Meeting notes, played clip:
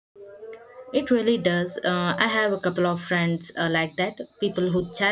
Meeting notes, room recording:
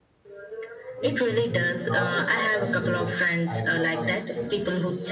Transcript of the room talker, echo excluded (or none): ancient Greek philosopher and their ideas on friendship.